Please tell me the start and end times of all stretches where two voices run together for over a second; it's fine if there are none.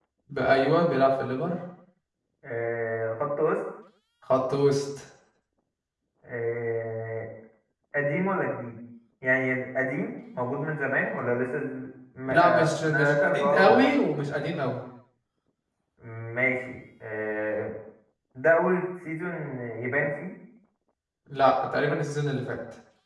12.3-13.8

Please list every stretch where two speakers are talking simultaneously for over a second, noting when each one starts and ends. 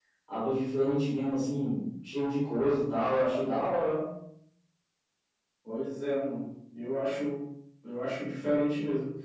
none

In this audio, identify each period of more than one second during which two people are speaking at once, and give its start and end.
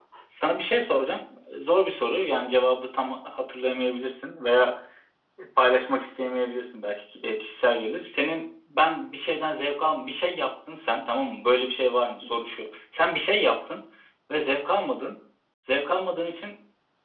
none

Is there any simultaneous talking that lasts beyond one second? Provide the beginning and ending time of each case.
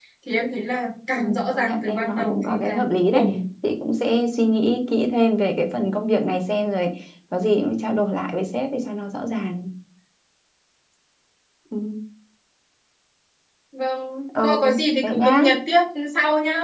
1.2-3.2

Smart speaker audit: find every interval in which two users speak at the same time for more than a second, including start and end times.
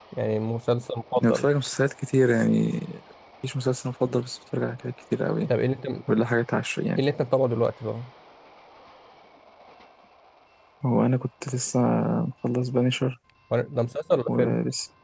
none

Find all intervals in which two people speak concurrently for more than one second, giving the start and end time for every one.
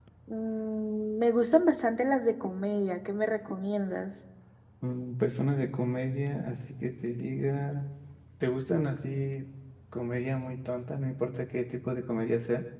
none

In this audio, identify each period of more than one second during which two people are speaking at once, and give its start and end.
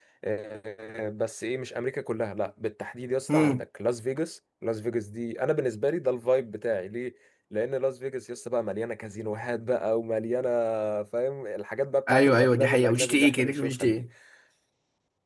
12.1-14.0

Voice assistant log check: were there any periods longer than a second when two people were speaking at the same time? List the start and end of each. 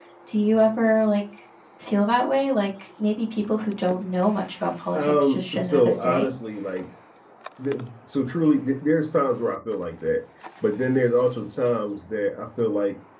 4.9-6.3

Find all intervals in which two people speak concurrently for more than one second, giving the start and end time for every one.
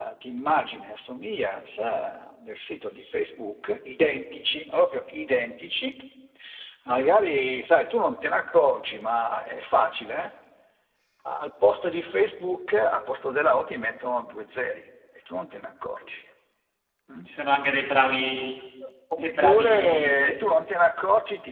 19.2-20.4

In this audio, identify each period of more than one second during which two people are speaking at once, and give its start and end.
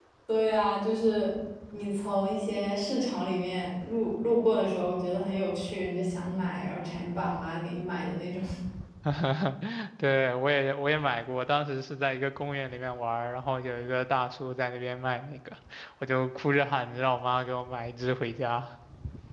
none

